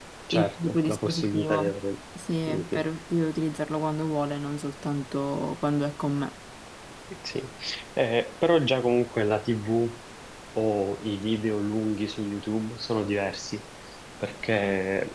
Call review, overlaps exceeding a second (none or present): present